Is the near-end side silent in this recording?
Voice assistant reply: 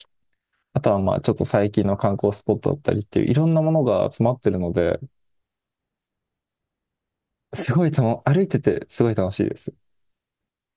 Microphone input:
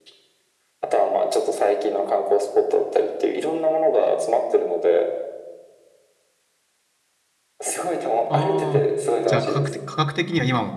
No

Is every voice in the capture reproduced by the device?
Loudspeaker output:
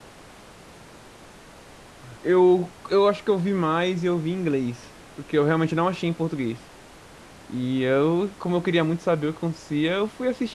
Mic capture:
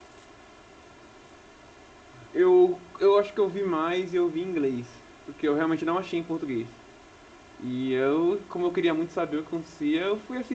Yes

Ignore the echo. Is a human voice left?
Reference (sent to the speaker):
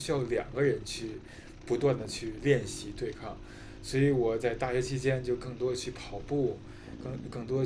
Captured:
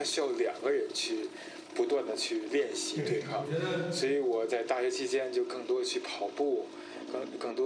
Yes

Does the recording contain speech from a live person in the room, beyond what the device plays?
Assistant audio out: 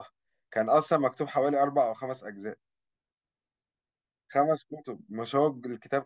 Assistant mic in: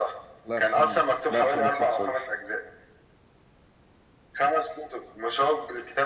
Yes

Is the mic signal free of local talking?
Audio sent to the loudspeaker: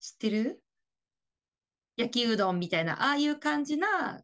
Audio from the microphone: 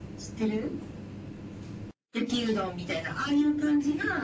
Yes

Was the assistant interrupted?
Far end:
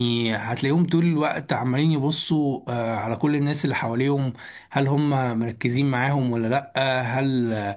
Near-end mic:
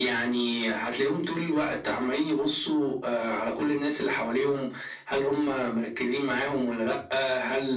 No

